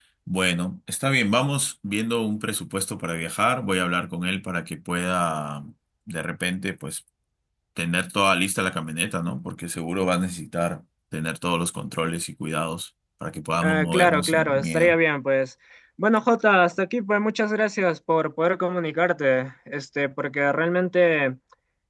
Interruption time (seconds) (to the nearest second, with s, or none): 14 s